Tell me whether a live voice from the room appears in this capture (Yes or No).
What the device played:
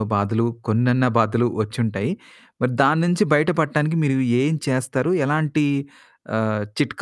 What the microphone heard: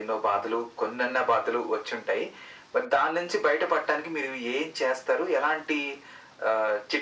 No